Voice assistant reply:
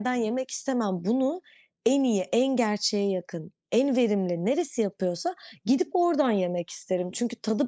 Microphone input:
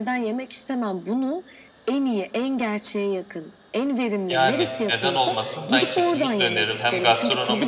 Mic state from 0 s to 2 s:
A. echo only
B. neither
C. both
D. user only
A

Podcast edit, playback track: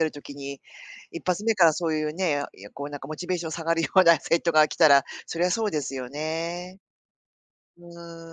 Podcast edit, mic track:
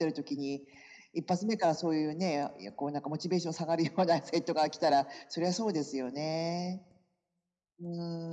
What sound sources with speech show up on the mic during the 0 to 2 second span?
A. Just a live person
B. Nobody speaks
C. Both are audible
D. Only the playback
D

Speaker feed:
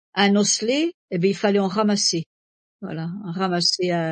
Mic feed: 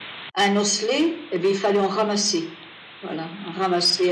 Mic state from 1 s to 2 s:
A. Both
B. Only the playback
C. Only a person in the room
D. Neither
B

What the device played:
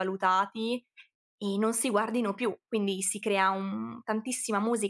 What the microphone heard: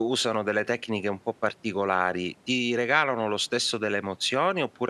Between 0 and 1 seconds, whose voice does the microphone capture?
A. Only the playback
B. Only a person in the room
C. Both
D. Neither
B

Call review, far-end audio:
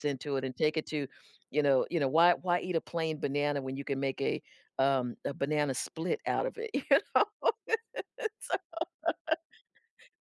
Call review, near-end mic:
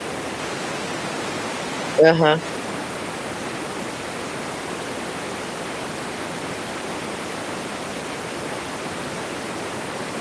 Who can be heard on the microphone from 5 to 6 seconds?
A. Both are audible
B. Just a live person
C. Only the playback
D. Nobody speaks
D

